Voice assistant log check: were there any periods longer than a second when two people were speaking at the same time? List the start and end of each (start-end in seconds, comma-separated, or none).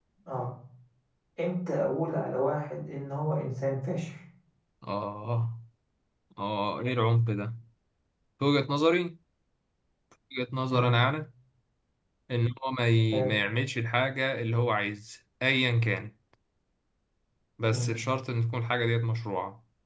none